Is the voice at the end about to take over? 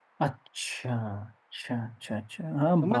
Yes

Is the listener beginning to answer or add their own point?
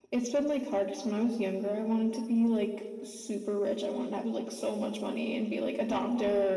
No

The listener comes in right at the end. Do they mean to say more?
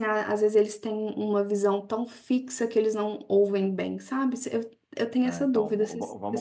Yes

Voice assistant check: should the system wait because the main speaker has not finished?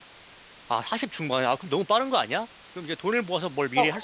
No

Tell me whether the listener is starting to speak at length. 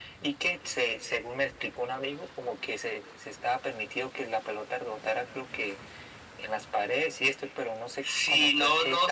Yes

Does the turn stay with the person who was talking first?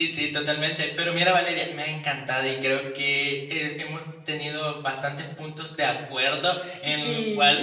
Yes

